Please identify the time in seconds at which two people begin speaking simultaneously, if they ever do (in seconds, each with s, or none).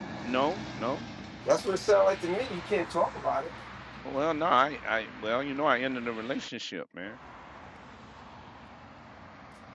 none